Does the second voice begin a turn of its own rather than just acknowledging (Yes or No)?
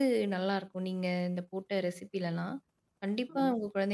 No